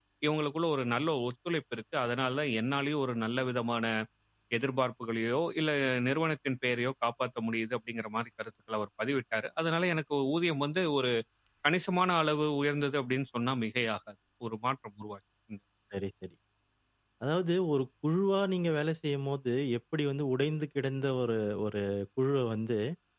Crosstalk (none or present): none